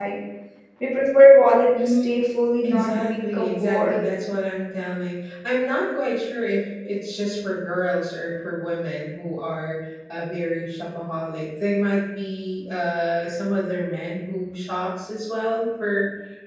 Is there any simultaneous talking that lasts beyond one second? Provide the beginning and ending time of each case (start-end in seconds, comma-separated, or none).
2.6-4.0